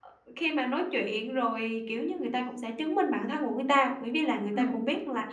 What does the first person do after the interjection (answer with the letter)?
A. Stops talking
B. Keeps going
B